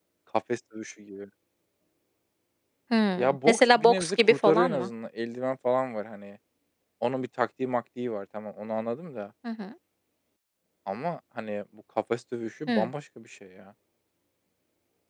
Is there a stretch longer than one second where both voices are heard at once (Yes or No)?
Yes